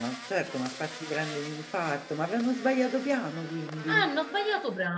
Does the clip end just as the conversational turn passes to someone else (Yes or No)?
Yes